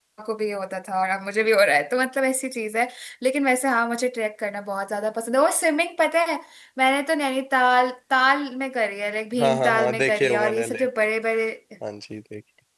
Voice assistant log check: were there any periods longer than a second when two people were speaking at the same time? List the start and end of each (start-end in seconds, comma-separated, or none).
9.4-11.0